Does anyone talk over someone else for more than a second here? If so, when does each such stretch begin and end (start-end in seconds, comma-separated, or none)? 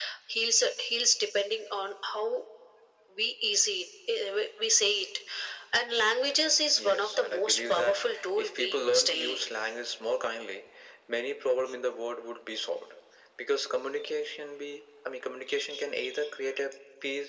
6.8-9.4